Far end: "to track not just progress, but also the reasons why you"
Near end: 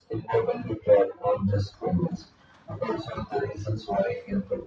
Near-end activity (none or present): none